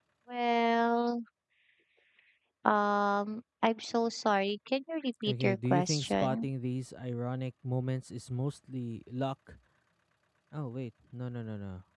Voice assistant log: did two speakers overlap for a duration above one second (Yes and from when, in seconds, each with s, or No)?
Yes, from 5.3 s